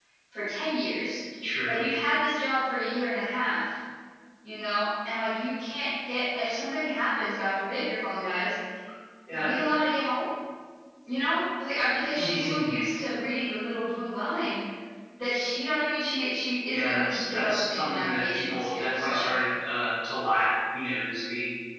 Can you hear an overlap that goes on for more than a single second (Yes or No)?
Yes